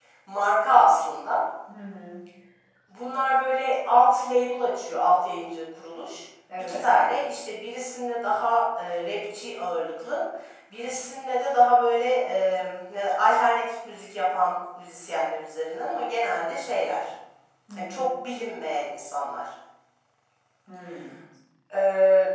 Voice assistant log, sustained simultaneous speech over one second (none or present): none